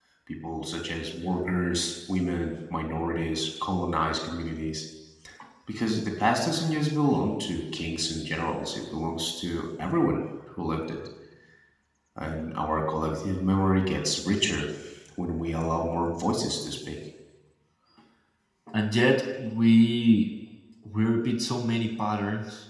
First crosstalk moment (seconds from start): none

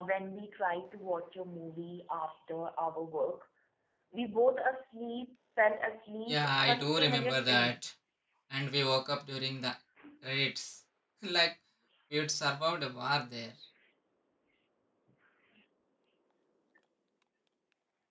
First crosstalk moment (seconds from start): 6.3 s

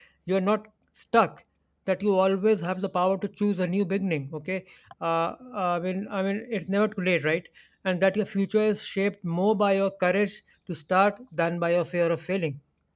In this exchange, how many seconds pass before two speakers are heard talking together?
none

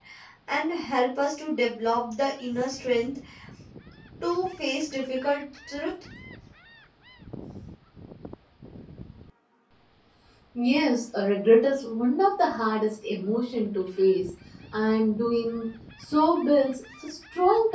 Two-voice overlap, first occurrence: none

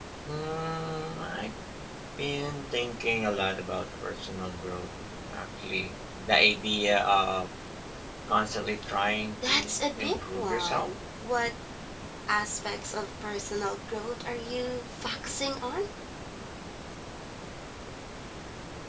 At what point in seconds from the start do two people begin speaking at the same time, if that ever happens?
9.4 s

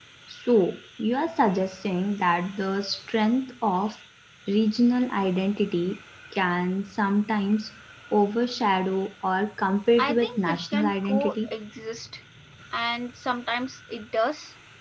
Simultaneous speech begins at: 10.0 s

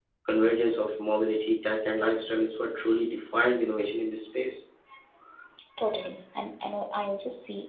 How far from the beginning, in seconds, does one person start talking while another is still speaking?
none

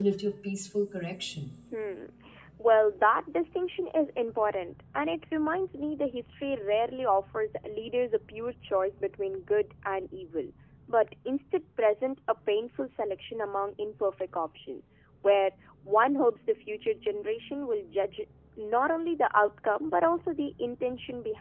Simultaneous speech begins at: none

